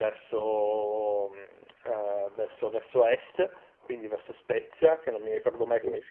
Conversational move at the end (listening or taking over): listening